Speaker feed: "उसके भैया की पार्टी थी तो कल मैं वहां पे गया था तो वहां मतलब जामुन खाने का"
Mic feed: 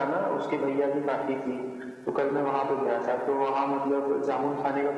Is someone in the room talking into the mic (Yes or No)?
No